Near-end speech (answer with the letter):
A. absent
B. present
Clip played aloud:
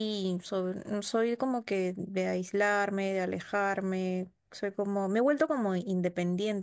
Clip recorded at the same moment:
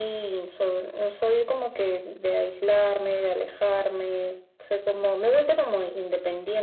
A